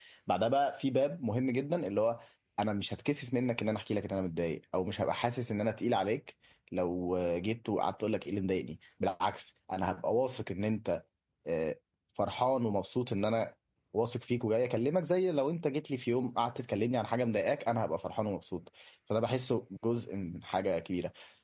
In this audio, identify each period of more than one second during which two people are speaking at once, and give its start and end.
none

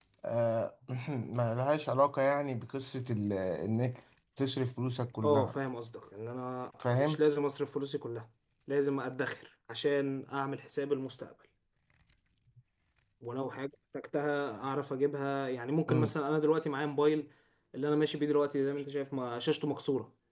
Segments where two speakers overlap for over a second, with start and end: none

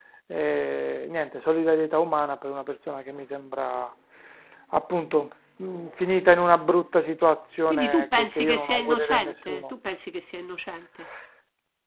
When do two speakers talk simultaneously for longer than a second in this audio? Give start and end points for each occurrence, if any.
7.7-9.6

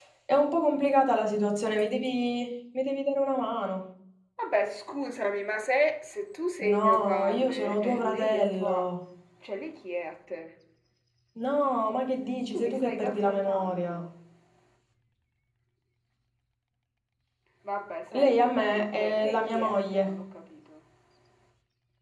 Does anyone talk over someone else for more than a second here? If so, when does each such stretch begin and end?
6.6-8.9, 12.5-14.0, 18.2-20.1

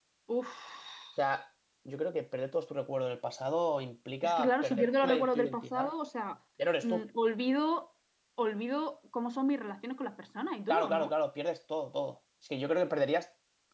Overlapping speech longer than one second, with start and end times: 4.2-5.9

